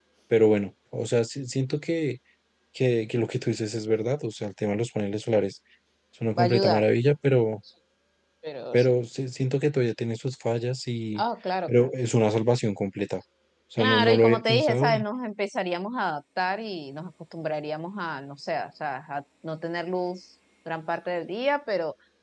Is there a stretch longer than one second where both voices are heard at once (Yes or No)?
Yes